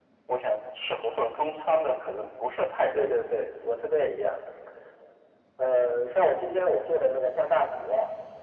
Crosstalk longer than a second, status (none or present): none